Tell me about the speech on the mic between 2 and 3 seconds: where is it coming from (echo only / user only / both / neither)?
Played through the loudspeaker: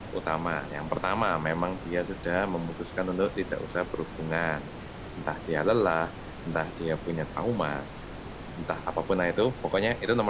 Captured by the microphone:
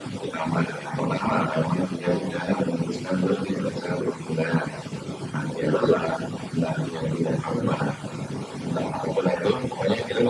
both